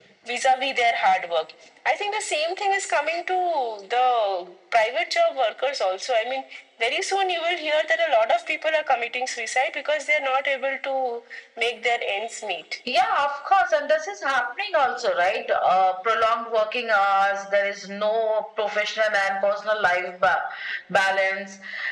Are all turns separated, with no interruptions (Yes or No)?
Yes